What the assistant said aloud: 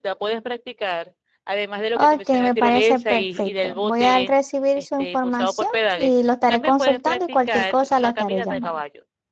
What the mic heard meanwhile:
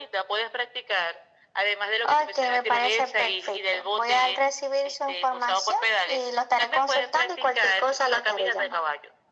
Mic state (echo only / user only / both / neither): echo only